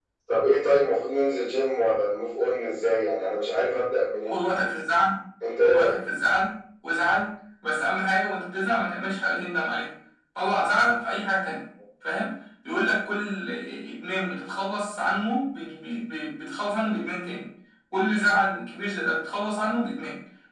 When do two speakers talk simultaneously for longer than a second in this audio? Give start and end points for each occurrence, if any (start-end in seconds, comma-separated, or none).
none